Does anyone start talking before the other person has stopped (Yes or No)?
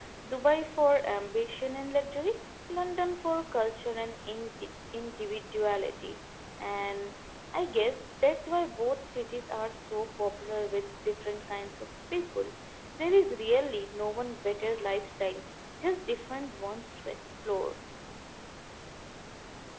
No